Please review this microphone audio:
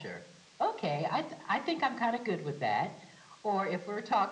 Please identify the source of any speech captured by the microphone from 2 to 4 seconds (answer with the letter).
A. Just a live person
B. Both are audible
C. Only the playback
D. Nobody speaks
C